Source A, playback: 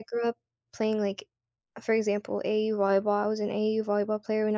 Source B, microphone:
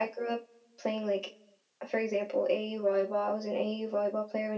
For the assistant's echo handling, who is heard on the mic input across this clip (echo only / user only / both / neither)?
echo only